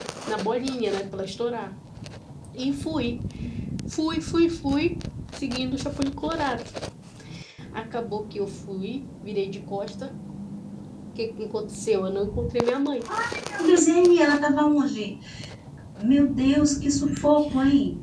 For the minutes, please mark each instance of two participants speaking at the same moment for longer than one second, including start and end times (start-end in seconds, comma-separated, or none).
none